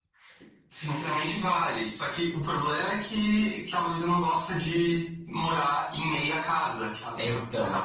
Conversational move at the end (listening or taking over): listening